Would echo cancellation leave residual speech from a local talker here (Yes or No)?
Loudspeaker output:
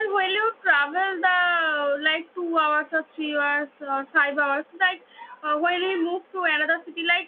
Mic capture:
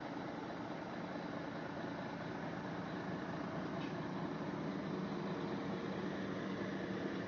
No